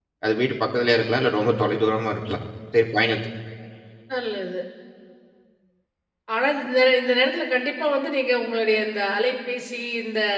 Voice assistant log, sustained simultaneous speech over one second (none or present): none